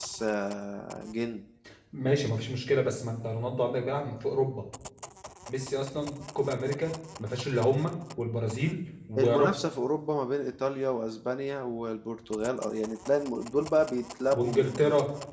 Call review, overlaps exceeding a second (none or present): none